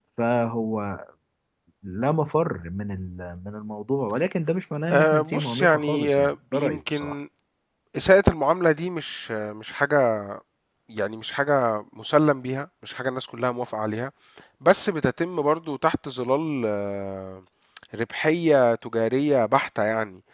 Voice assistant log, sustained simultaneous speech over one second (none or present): present